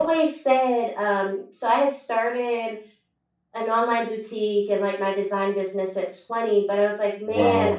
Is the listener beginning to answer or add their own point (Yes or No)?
No